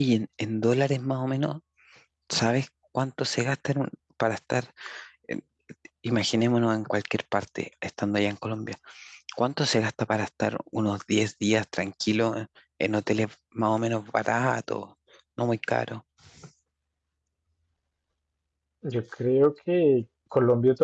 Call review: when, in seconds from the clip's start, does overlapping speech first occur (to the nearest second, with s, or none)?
none